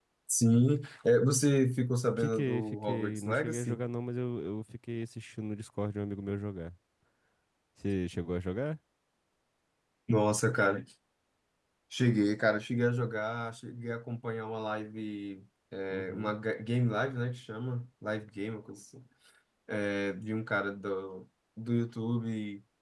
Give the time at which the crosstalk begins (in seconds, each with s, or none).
2.2 s